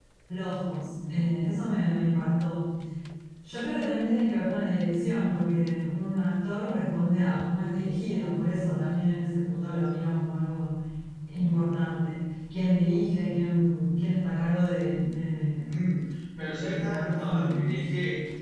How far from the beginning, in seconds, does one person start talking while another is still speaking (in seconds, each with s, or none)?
16.6 s